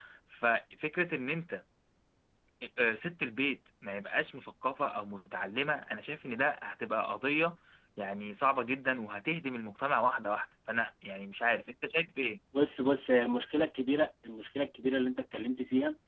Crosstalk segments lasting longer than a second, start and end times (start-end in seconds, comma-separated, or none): none